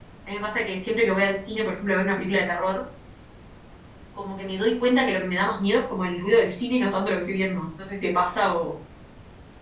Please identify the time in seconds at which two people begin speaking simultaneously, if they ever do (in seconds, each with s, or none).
none